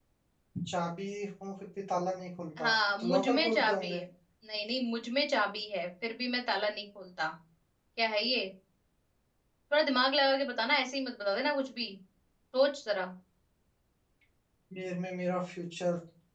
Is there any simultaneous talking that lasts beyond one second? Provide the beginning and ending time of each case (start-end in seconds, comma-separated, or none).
2.6-4.0